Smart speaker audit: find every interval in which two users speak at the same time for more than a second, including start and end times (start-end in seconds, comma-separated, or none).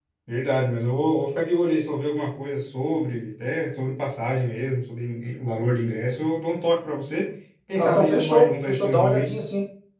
7.8-9.3